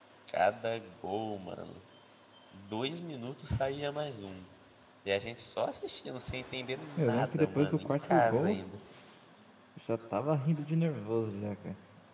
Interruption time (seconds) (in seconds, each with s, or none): 7.0 s